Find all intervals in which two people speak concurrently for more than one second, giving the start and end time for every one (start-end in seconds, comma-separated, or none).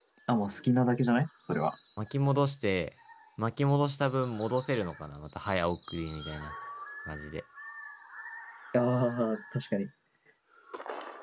none